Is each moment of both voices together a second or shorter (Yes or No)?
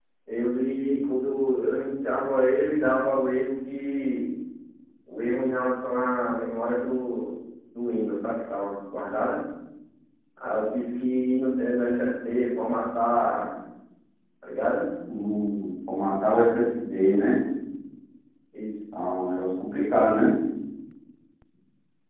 Yes